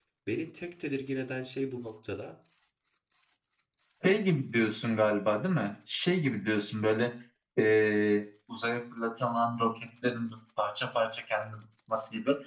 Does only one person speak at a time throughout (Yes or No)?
Yes